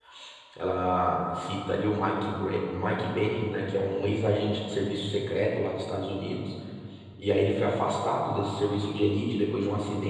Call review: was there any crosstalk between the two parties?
No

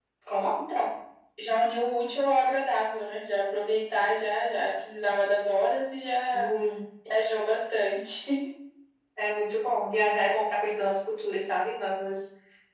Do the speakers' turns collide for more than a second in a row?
No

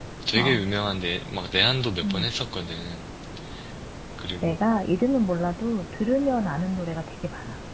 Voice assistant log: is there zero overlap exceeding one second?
Yes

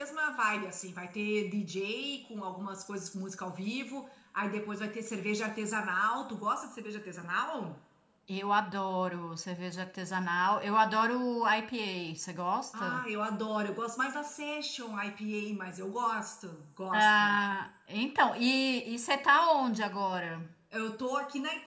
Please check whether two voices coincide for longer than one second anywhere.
No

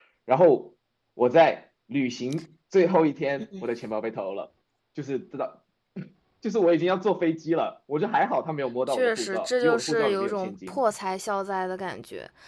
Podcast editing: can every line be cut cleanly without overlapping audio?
No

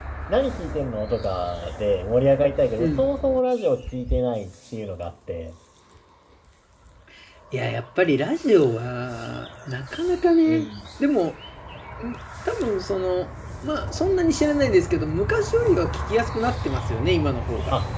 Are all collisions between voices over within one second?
Yes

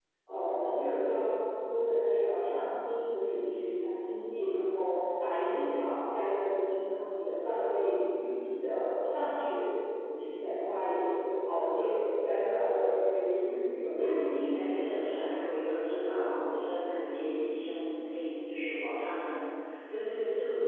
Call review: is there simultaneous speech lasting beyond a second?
Yes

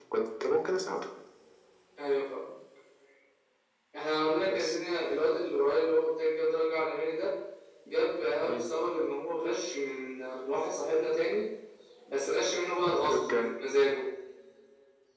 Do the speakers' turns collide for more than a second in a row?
No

